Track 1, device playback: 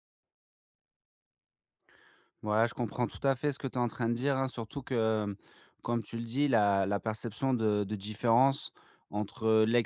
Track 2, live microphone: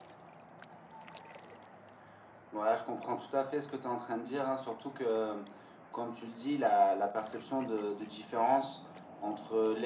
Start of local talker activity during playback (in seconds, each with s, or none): none